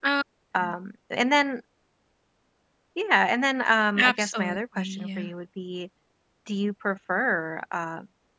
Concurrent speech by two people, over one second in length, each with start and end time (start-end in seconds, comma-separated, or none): 4.0-5.3